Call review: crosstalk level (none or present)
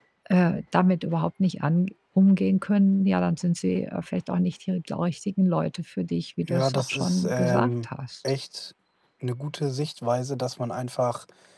present